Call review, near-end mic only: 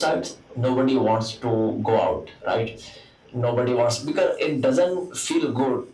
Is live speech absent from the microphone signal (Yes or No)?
Yes